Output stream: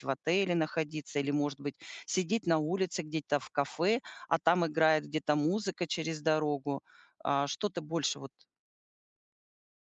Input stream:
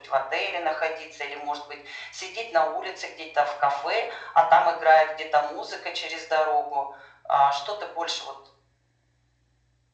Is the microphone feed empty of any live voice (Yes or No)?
Yes